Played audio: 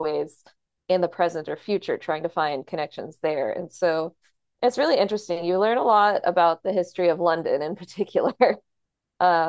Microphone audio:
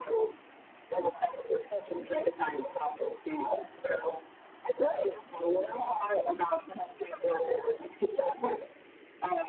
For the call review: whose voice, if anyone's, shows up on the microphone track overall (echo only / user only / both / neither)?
echo only